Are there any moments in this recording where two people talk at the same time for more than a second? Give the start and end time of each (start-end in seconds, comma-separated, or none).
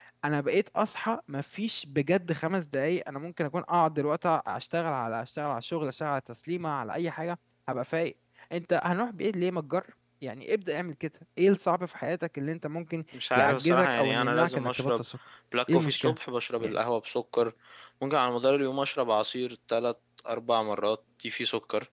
13.4-15.0